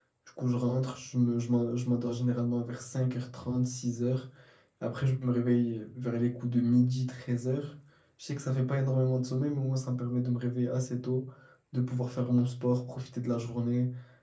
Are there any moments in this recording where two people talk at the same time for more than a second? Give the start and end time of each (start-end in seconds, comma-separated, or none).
none